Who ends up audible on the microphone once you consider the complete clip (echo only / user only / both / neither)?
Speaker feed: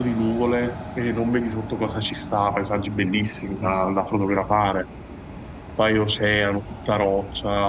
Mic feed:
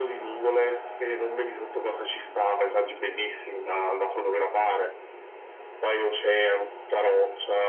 echo only